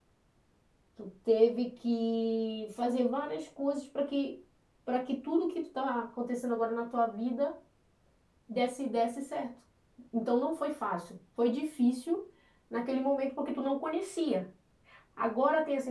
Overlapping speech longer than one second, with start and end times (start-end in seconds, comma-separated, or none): none